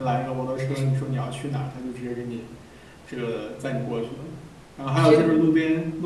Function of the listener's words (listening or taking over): listening